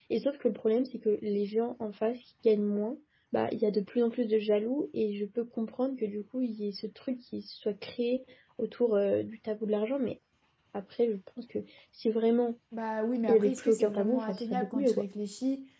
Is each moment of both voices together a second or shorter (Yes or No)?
No